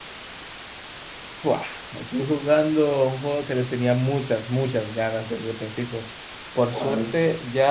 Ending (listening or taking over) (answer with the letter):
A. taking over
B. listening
B